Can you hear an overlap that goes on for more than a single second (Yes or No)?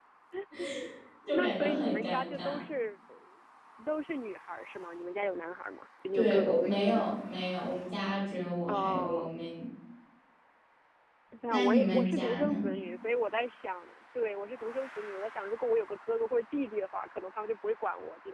Yes